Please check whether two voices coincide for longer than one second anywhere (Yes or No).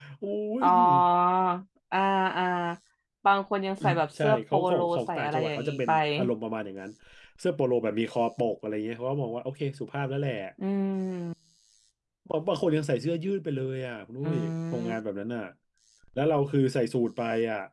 Yes